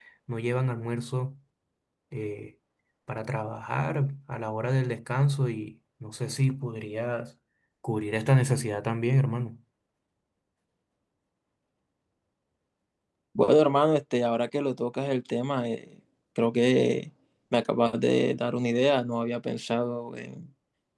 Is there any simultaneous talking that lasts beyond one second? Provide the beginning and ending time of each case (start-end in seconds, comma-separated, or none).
none